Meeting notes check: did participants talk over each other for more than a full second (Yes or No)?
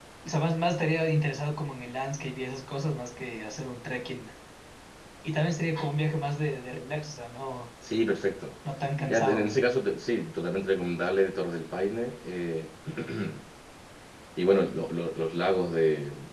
No